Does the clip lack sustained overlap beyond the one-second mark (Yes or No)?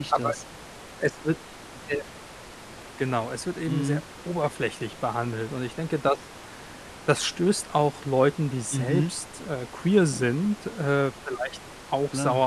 Yes